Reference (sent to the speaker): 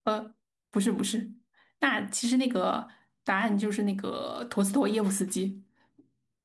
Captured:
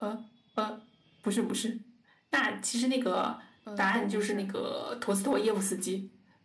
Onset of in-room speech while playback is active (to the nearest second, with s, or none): 4 s